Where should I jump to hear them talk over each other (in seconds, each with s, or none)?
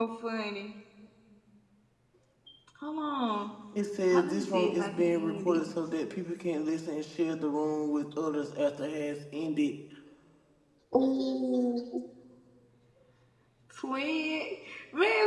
4.1 s